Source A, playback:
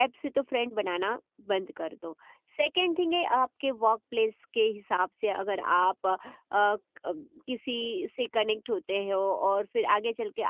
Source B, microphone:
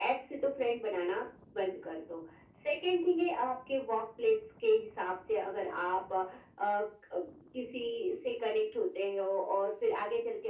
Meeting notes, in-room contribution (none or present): none